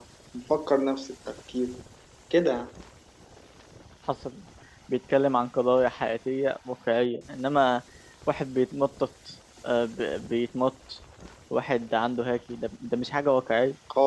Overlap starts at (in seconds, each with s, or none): none